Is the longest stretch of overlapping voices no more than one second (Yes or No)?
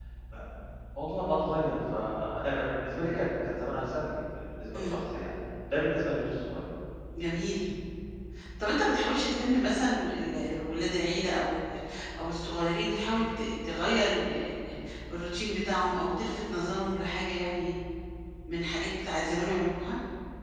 Yes